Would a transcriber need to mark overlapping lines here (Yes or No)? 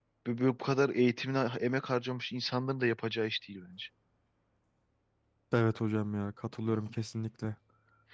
No